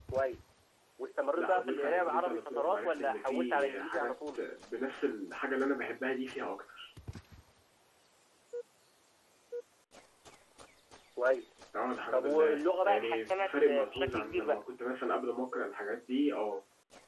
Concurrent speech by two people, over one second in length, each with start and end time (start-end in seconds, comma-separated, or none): 1.4-4.4, 12.1-14.6